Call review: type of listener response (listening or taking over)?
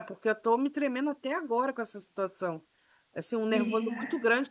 listening